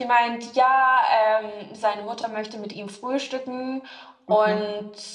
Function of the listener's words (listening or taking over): listening